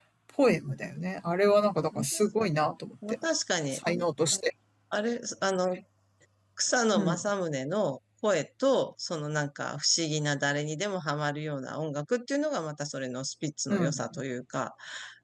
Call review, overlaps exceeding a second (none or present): none